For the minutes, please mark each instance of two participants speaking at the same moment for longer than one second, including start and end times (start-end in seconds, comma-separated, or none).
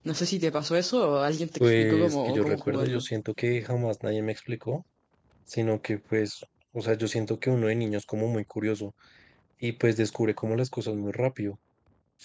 1.6-3.0